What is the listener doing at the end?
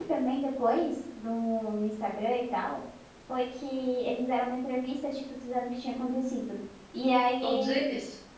listening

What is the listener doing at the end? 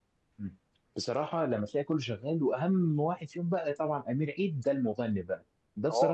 listening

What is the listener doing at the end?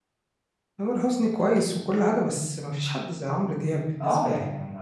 taking over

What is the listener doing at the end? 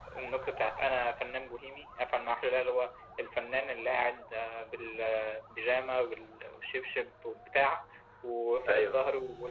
listening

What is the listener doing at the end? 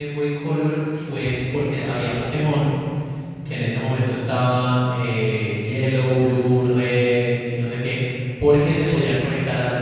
listening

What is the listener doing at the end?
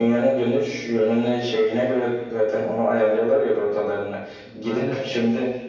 listening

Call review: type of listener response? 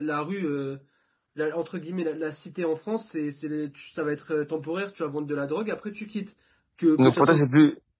taking over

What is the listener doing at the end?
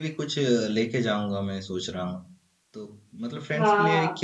listening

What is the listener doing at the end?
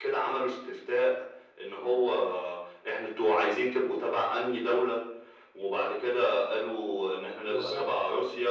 listening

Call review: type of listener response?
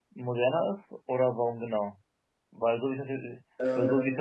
listening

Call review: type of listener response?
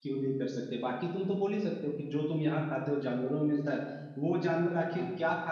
listening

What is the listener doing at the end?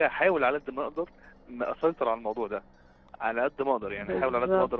listening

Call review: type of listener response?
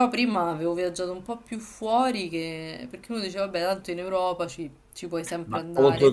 taking over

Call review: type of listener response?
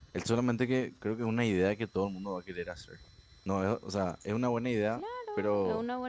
taking over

